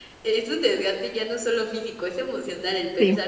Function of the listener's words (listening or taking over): listening